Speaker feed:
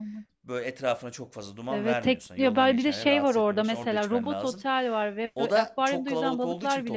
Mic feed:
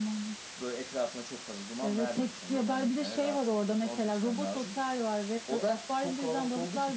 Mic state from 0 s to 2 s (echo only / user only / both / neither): echo only